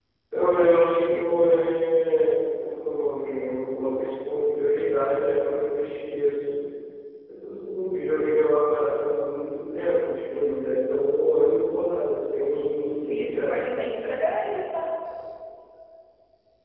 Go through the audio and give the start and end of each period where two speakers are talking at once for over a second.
none

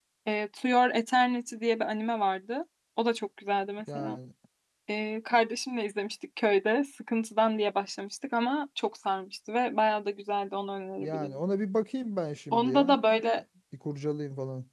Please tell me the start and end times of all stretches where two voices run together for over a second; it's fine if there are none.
none

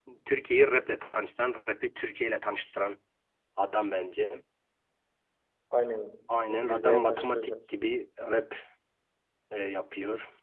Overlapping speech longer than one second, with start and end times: 6.3-7.8

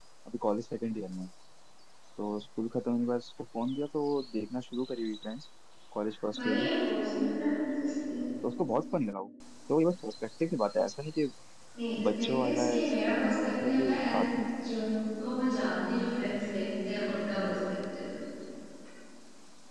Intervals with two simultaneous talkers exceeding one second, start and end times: 12.1-14.3

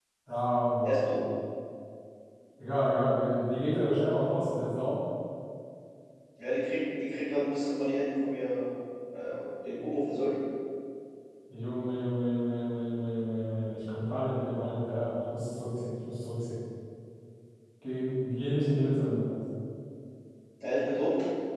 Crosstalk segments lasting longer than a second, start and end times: none

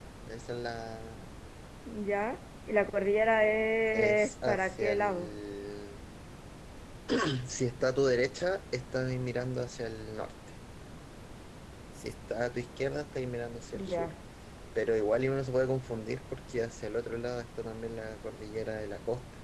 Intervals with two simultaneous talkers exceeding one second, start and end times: 3.9-5.3

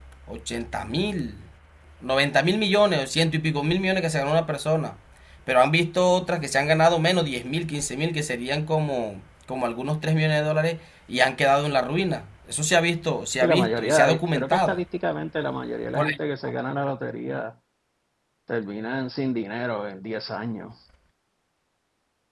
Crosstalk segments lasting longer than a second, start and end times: 13.4-14.8

